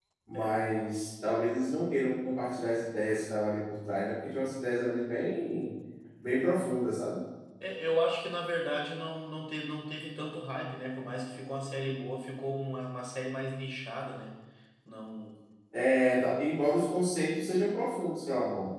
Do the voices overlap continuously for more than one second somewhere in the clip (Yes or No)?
No